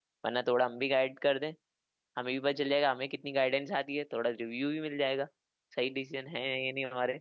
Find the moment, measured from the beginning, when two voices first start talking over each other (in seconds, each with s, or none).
none